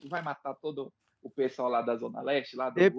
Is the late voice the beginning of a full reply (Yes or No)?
Yes